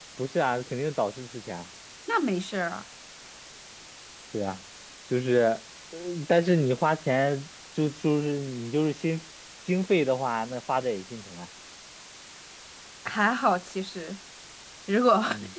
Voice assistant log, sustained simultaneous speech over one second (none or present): none